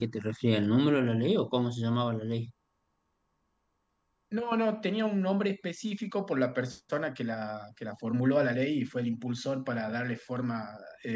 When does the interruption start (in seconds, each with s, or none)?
none